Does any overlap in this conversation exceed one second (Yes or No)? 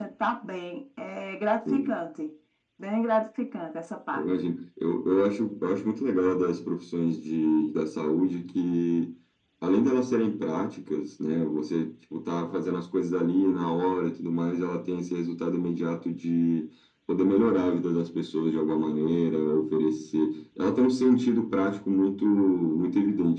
No